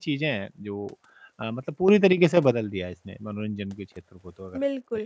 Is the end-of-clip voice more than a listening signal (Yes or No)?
Yes